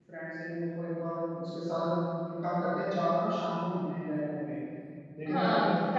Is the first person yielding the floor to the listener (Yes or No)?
Yes